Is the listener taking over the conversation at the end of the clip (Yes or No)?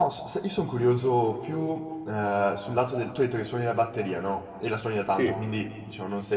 No